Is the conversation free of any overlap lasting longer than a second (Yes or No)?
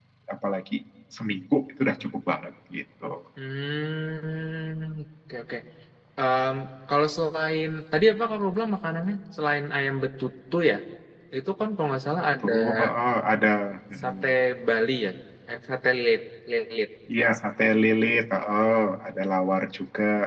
Yes